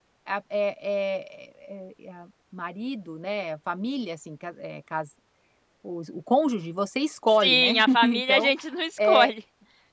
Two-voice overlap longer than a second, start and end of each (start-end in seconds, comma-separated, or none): 7.3-8.5